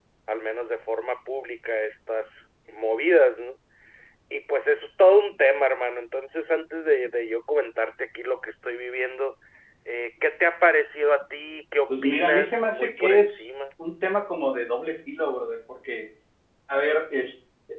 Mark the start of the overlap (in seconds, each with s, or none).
11.9 s